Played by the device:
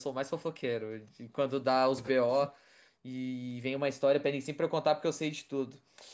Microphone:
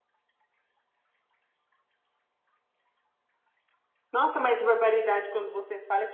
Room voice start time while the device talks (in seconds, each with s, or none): 4.1 s